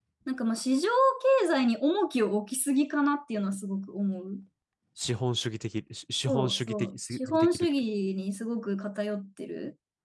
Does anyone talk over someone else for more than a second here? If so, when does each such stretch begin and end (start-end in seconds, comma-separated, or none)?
6.2-7.7